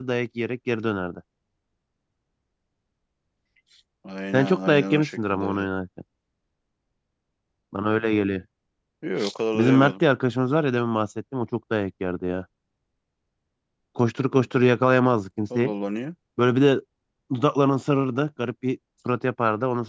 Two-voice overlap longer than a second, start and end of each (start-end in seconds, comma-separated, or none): 4.3-5.7